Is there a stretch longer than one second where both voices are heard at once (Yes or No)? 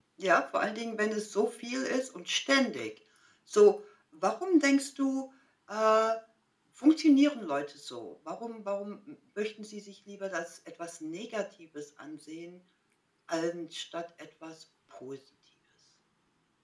No